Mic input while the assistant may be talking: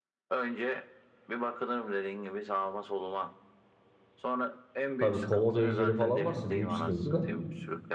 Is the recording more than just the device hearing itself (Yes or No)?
Yes